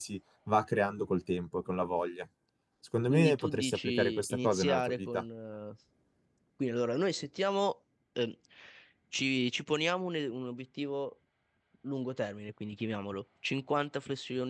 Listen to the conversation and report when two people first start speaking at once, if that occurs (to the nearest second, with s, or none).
3 s